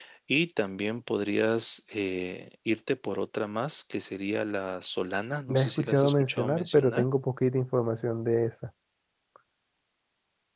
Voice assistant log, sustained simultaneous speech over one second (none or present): present